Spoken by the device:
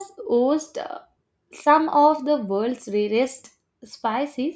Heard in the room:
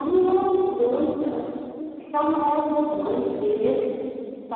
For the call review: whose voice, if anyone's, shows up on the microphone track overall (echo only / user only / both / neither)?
echo only